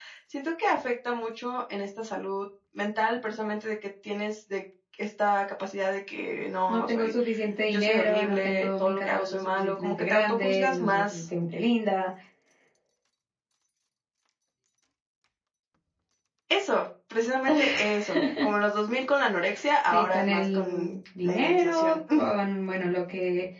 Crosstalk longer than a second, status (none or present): present